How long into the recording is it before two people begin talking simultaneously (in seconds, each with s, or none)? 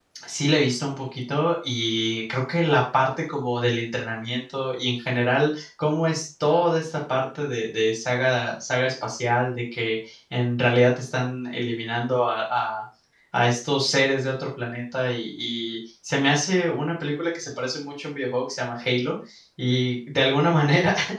none